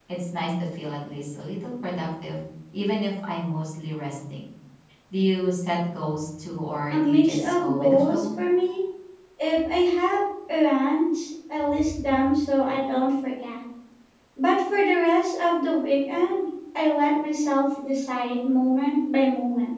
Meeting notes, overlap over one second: present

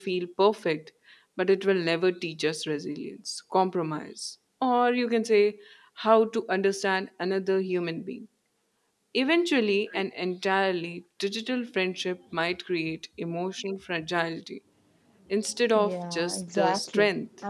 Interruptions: present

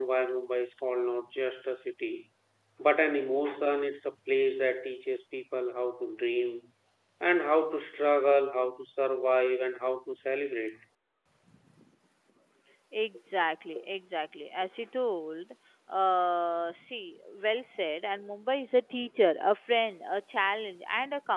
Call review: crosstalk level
none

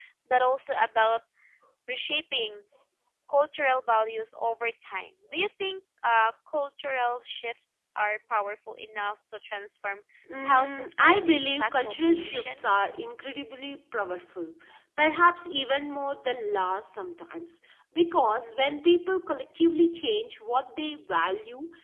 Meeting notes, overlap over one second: present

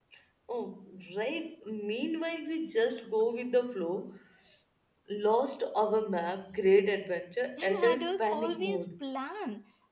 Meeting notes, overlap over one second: present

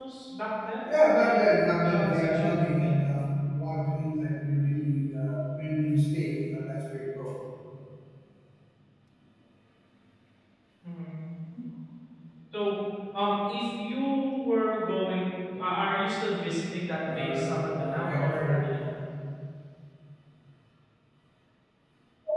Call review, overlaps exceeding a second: present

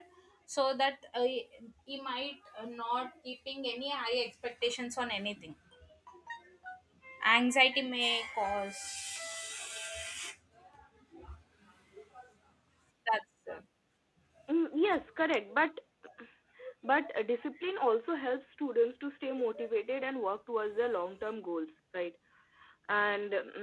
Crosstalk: none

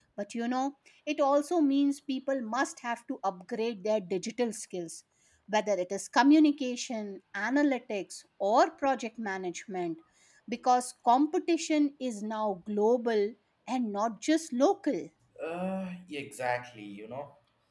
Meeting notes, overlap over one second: none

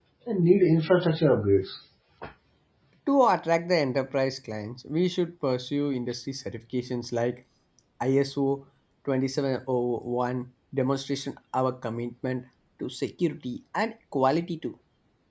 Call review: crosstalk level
none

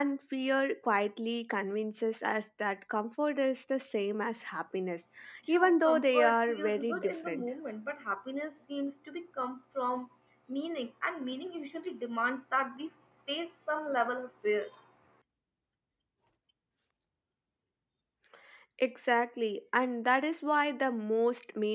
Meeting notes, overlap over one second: present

